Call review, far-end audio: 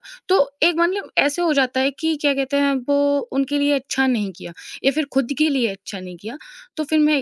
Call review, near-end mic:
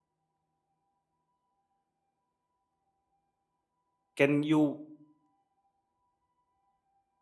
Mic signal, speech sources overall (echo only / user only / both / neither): user only